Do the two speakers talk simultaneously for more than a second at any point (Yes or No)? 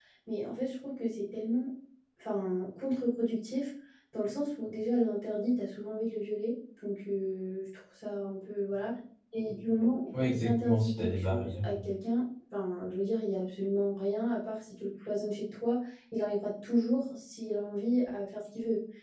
Yes